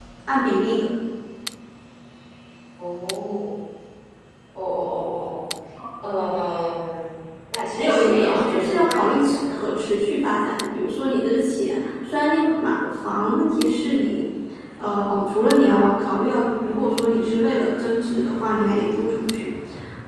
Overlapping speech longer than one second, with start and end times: 7.8-9.7

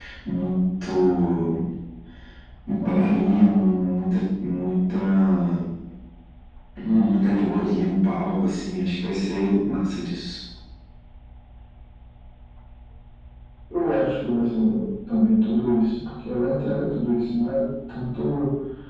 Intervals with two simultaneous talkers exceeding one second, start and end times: none

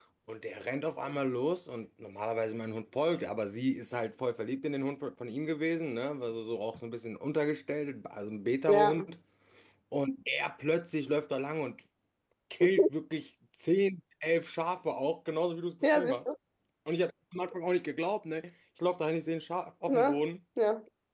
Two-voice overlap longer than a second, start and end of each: none

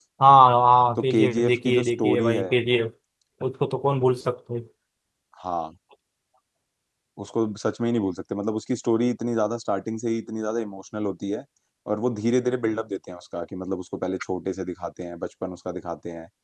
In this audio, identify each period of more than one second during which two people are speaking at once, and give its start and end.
1.0-2.5

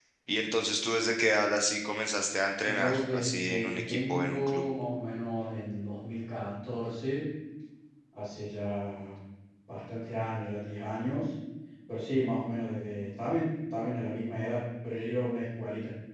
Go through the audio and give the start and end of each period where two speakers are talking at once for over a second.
2.6-4.7

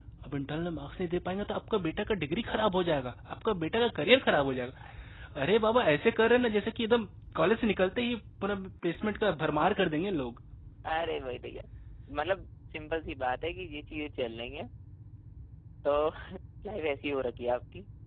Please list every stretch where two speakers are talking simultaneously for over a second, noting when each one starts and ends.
none

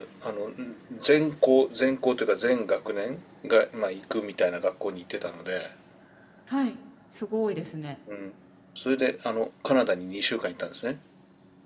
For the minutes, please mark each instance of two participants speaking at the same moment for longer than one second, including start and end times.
none

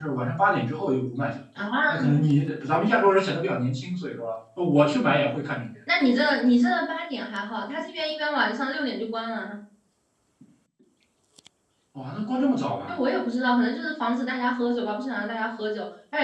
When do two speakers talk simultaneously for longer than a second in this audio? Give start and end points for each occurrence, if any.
none

